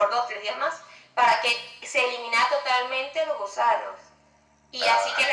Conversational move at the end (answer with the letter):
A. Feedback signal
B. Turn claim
A